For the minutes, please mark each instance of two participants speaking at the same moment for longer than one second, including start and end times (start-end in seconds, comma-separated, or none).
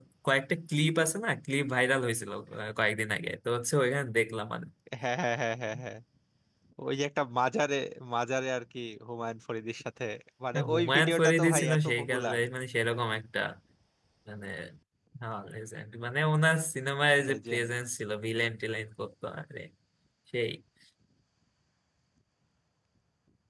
10.5-12.4